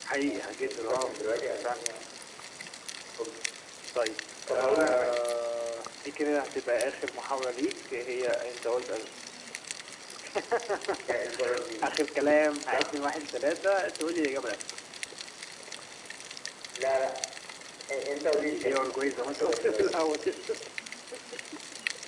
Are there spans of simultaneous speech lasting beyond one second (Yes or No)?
Yes